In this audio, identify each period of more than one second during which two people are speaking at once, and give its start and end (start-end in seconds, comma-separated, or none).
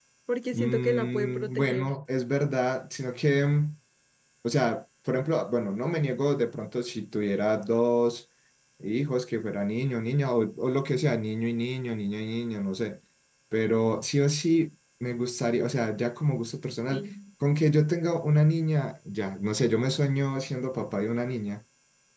0.5-1.9